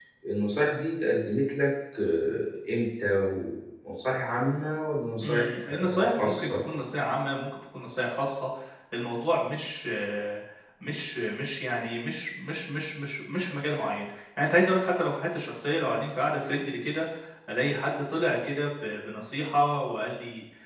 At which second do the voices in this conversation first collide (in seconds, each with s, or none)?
5.2 s